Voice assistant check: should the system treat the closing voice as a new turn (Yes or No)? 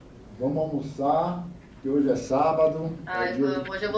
Yes